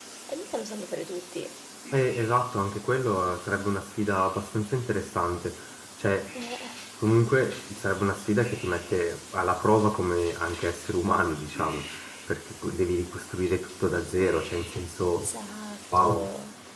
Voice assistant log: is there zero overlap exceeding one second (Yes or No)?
Yes